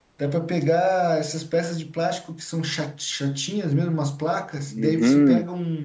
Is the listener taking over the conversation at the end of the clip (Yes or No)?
No